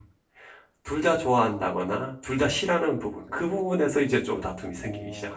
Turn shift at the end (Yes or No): Yes